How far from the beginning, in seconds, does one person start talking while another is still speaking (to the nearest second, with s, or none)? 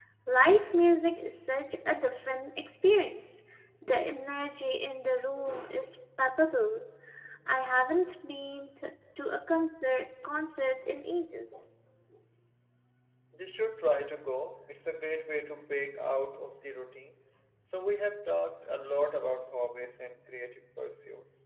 none